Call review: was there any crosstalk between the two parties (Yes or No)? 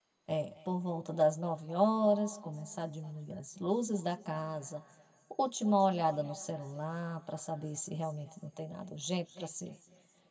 No